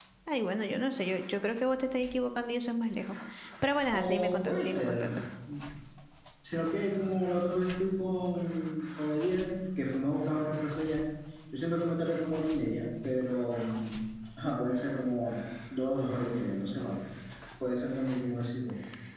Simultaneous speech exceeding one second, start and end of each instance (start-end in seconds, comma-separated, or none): 3.9-5.1